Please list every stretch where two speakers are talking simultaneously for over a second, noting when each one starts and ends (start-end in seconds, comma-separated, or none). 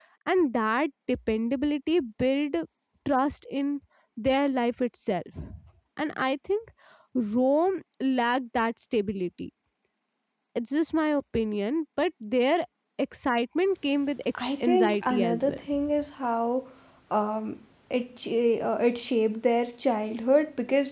14.3-15.6